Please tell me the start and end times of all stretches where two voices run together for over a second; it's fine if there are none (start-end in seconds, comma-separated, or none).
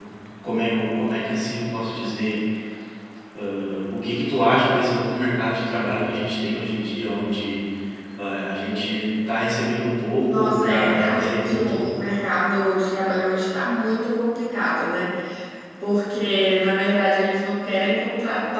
10.2-11.8